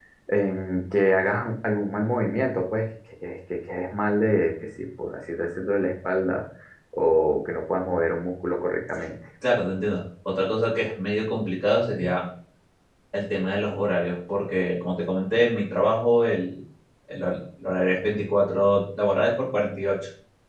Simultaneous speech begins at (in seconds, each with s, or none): none